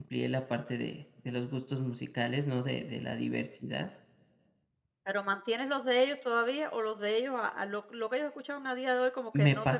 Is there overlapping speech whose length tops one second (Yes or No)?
No